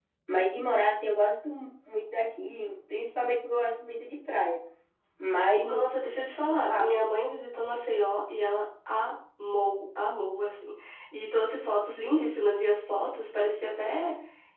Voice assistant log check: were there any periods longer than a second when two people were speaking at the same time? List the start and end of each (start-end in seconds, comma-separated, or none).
none